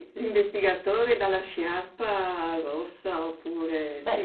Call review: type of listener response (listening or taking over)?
taking over